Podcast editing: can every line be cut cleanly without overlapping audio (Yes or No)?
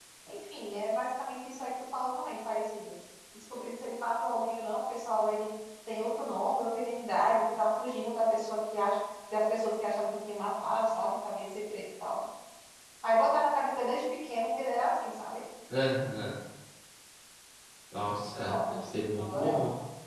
No